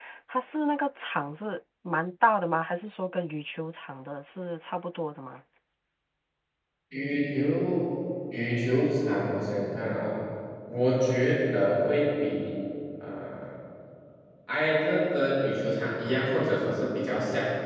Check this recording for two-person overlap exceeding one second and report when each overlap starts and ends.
none

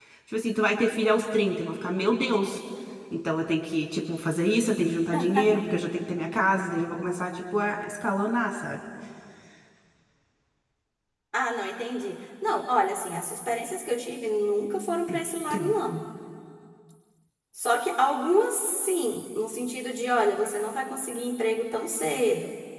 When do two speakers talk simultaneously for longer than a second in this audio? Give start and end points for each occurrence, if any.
none

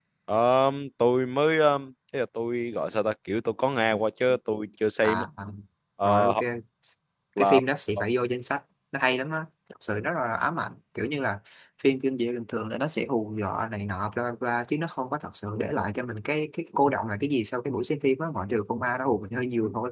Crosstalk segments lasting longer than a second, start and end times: none

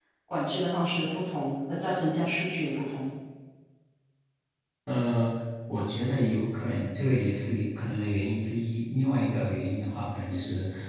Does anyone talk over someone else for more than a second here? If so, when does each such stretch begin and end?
none

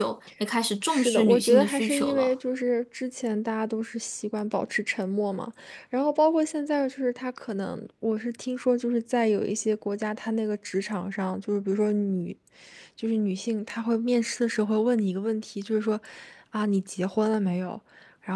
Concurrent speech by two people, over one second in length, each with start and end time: 0.9-2.3

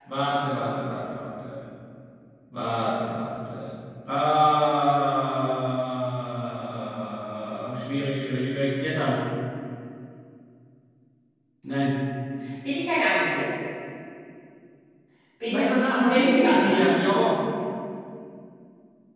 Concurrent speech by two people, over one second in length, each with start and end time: 15.4-16.8

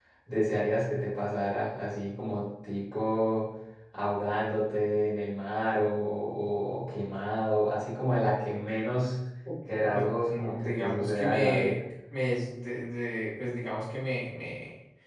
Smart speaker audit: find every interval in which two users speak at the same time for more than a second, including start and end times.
9.9-11.8

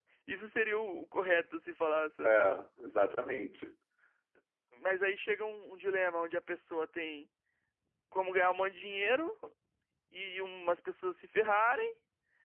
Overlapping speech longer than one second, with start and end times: none

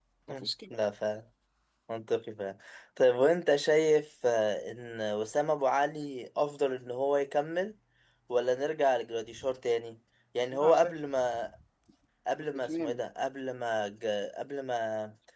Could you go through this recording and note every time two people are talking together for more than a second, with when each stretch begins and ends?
none

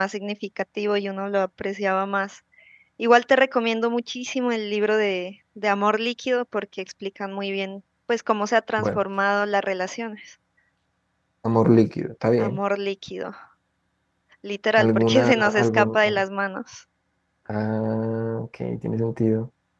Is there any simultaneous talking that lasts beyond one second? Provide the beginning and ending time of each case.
14.8-16.2

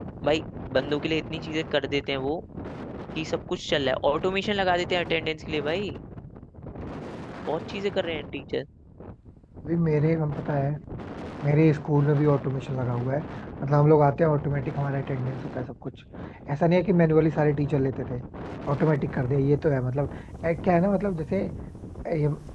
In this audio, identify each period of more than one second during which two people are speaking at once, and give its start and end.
none

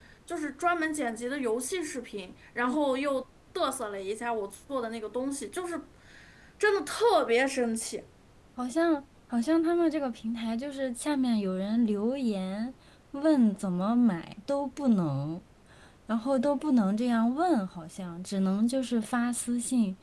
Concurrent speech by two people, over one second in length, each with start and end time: none

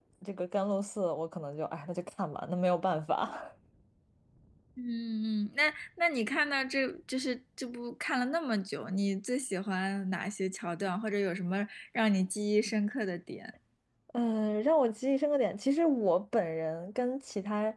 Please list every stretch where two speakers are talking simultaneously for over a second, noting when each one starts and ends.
none

